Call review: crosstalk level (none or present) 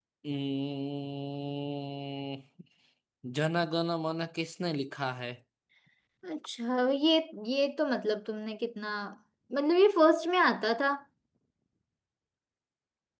none